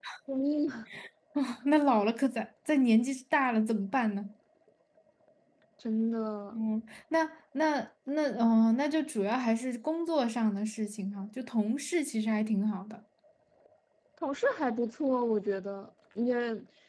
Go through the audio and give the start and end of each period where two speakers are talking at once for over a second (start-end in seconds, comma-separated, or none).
none